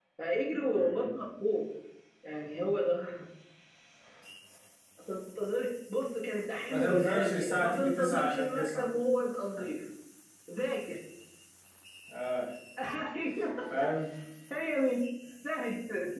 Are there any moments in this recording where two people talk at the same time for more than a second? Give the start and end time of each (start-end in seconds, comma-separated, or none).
6.7-8.9